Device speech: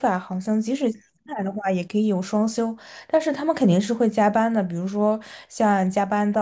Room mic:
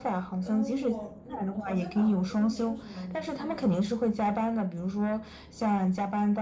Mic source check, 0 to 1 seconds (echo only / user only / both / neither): both